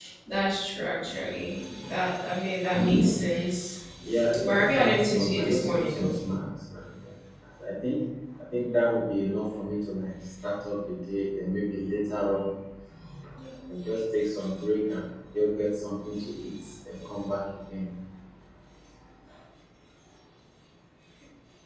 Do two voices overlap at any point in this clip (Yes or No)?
Yes